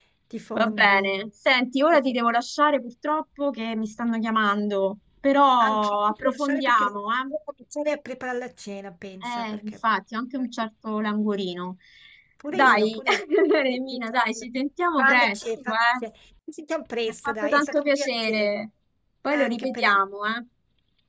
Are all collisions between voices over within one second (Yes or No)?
No